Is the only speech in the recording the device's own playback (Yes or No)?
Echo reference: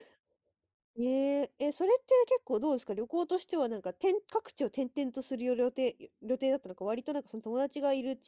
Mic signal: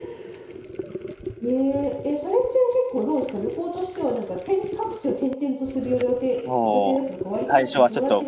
No